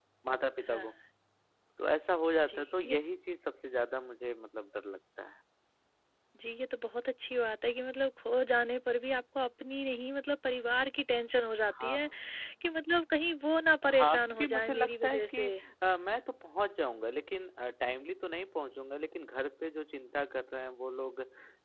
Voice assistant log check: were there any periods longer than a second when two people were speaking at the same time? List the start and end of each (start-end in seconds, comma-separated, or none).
14.0-15.5